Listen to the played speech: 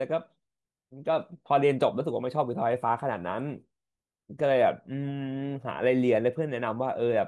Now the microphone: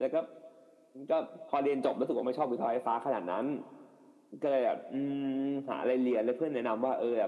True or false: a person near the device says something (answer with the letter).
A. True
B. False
B